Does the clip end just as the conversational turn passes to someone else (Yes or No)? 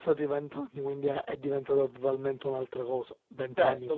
Yes